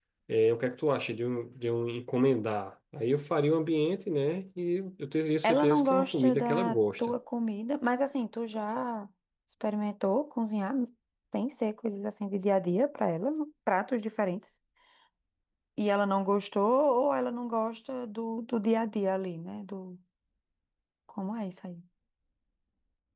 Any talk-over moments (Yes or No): Yes